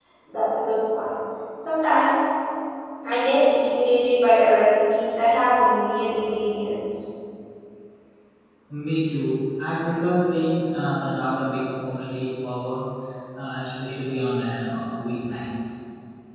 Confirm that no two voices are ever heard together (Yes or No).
Yes